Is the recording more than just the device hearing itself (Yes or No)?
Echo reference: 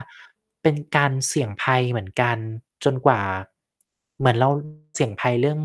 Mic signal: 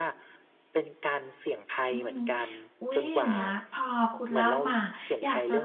Yes